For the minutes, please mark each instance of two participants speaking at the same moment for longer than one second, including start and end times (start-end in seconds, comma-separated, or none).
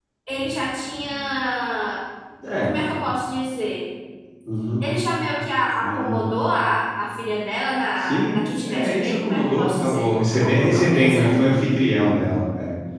8.0-11.3